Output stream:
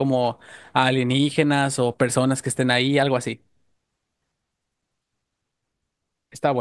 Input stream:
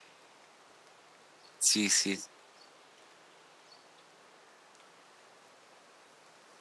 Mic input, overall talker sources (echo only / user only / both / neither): user only